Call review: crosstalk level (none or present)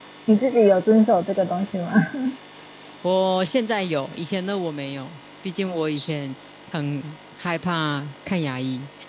none